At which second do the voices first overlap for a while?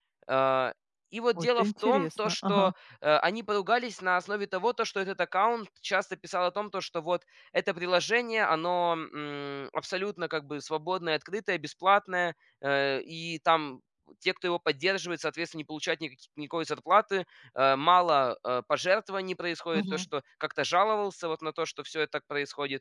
1 s

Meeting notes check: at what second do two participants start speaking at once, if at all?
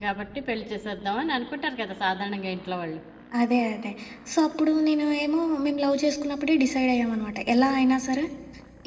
none

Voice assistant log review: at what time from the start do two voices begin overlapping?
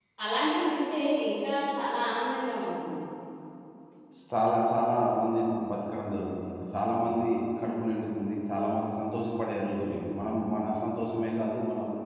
none

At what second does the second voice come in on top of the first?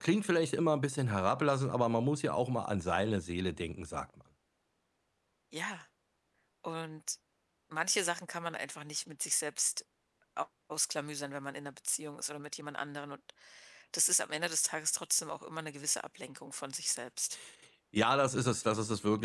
none

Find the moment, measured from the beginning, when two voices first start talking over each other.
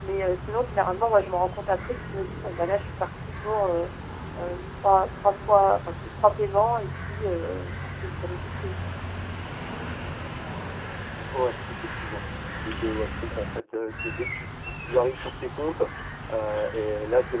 none

